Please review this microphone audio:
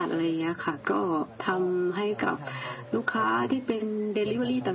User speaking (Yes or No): Yes